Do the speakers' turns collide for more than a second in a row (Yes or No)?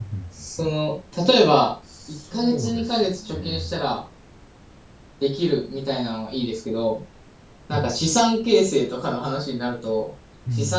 Yes